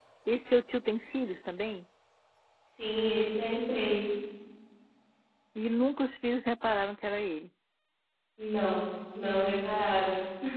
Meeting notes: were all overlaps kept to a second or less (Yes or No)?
Yes